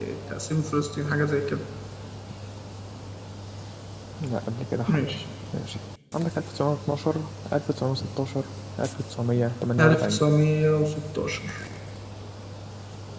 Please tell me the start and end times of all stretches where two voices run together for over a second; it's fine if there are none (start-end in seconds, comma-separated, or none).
none